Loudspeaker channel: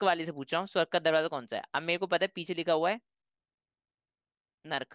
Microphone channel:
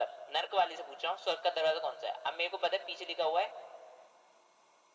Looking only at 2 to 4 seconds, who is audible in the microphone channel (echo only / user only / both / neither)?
echo only